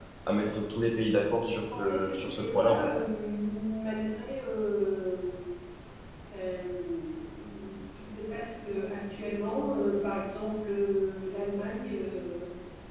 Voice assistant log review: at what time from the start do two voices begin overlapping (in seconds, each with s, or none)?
1.8 s